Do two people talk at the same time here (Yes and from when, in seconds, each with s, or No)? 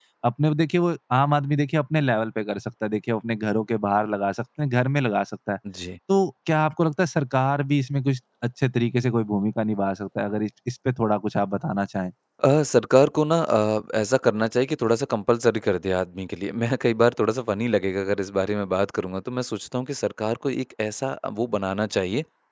No